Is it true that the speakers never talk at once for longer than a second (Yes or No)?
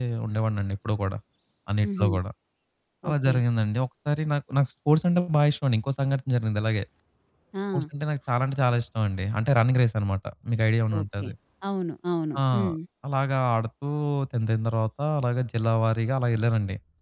Yes